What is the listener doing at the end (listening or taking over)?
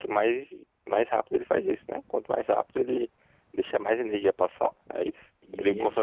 taking over